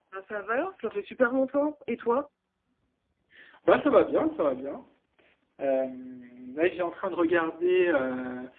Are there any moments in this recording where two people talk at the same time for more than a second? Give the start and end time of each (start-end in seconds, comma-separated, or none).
none